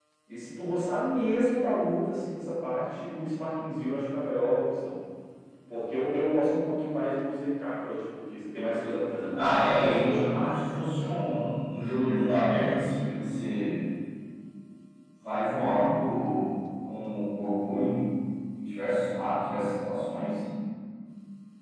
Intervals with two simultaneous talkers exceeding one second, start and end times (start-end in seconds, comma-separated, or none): 9.3-10.9